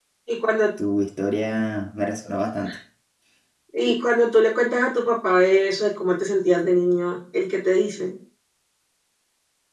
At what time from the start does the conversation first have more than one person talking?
none

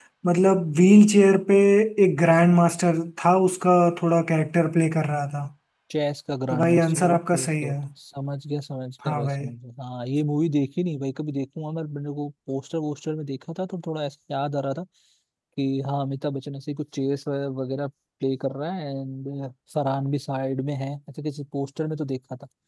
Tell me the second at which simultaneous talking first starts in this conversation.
6.5 s

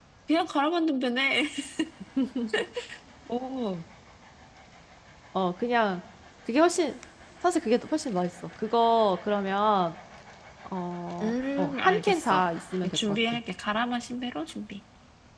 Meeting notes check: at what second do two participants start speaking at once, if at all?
11.2 s

